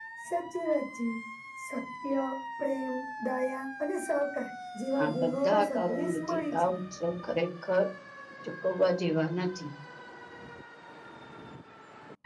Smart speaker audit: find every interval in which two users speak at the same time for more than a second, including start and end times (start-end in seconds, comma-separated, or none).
5.0-6.7